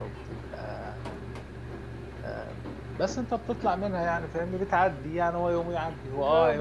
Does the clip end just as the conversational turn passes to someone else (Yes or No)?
Yes